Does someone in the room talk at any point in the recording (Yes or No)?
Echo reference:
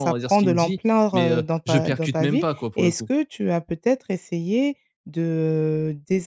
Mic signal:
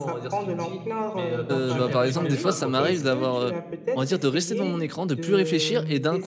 Yes